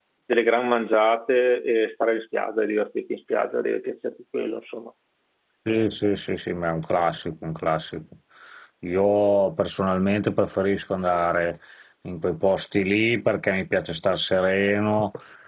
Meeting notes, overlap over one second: none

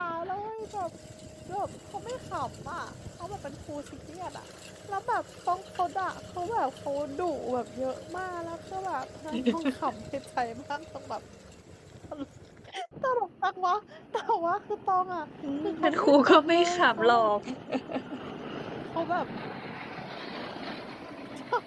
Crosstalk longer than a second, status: present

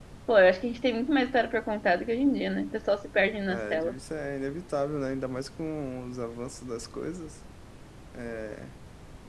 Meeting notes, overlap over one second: none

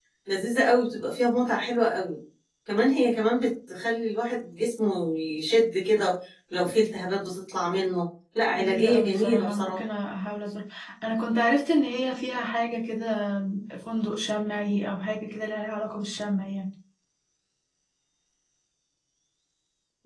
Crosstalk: present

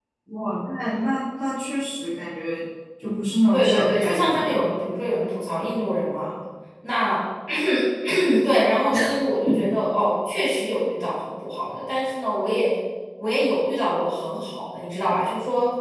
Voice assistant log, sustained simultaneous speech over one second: present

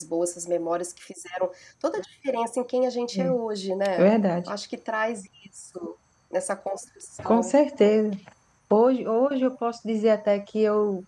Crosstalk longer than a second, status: none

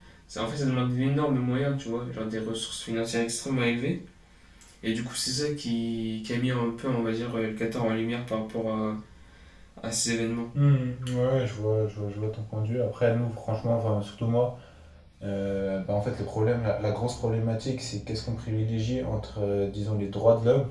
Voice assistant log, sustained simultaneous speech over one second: none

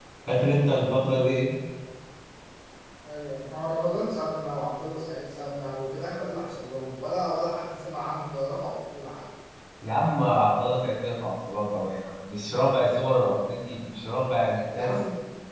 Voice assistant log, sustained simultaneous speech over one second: none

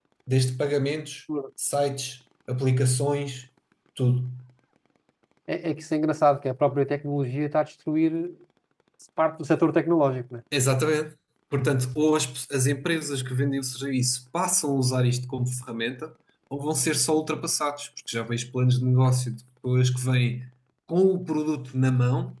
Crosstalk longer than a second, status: none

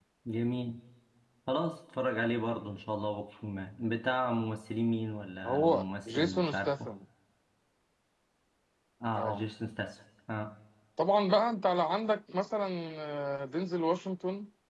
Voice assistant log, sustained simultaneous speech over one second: present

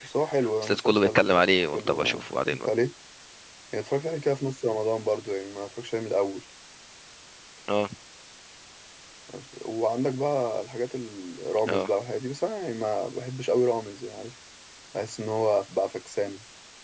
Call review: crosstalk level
present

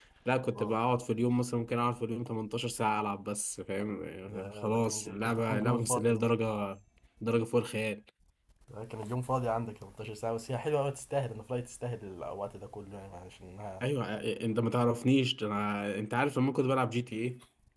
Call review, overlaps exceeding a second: present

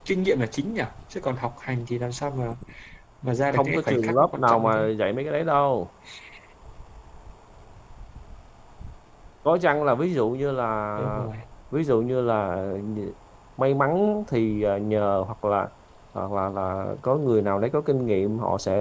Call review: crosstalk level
present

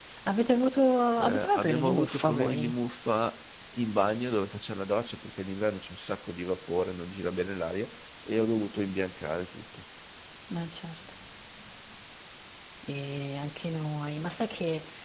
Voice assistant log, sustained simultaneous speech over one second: present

